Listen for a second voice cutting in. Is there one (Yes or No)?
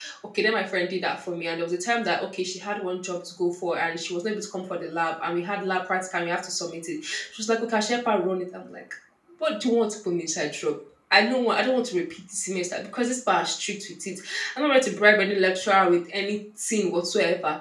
No